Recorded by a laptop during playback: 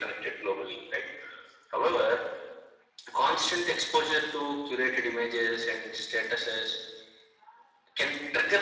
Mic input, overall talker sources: echo only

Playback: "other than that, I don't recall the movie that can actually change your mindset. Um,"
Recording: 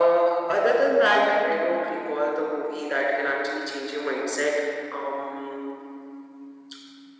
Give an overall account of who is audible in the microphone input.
echo only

